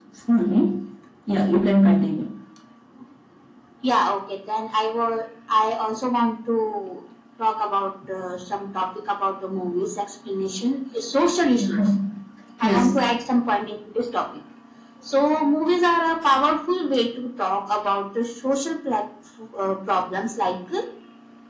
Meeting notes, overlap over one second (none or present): none